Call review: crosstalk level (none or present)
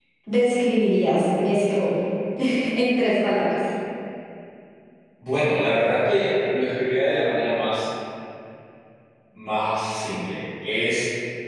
none